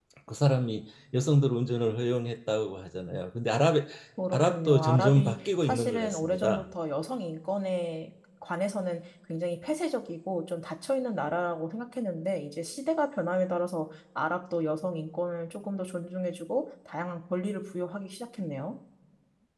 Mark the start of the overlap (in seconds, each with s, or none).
4.3 s